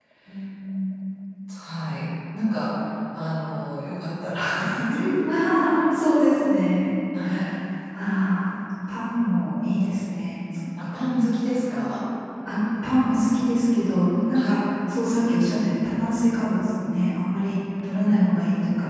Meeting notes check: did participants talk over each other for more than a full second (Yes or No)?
No